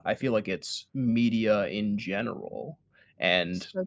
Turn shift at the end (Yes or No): No